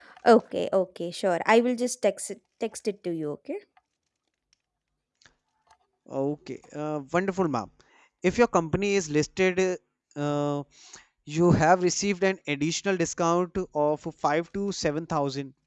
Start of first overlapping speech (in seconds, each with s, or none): none